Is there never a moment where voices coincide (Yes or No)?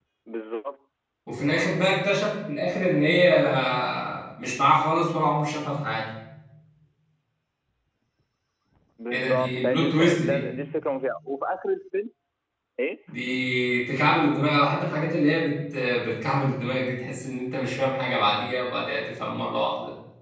No